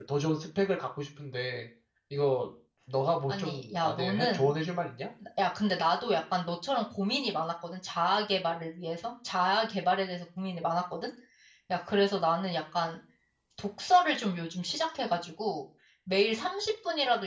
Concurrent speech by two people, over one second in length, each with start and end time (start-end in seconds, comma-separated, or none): 3.3-4.5